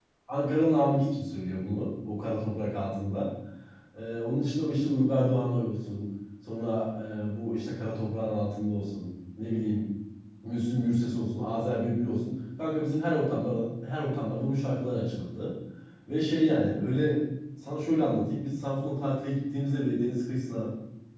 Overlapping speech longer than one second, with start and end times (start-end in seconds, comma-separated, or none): none